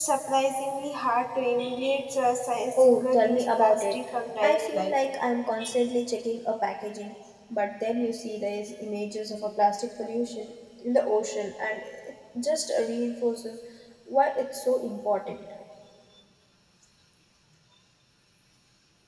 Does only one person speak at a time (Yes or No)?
No